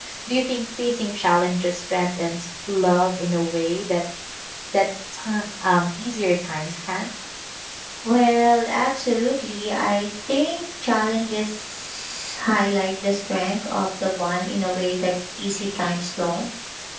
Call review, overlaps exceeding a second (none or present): none